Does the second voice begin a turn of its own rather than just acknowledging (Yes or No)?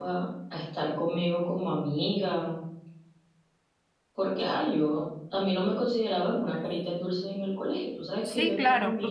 Yes